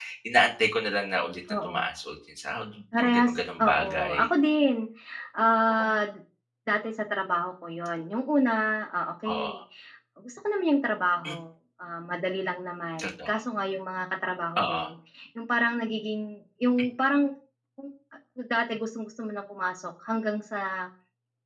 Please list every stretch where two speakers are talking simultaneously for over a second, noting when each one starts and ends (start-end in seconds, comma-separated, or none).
3.0-4.2